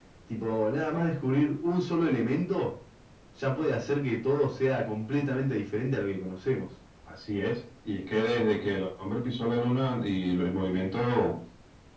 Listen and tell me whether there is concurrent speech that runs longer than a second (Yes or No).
No